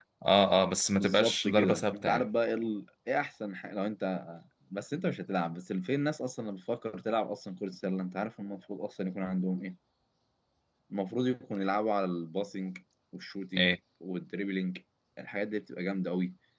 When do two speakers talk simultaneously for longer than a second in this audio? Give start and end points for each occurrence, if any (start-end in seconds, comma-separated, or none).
1.0-2.3